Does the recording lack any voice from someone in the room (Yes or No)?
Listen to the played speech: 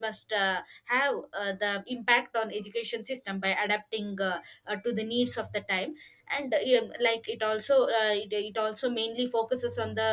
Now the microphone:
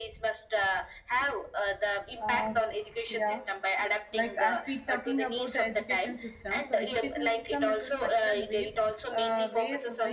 No